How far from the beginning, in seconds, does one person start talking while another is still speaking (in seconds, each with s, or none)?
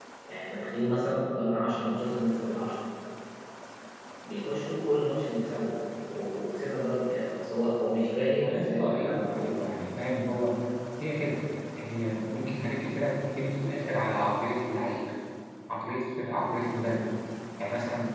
8.4 s